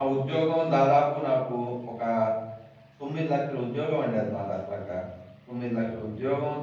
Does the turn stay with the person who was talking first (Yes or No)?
Yes